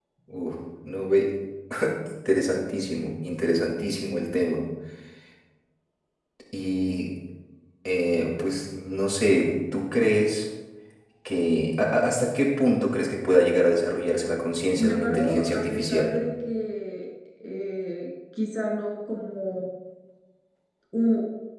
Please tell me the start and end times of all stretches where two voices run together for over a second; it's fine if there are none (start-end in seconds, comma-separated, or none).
14.8-16.2